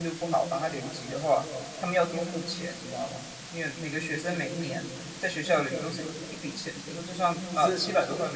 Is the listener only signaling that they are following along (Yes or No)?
No